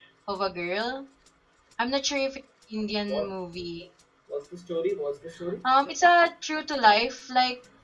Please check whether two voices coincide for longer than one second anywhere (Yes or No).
No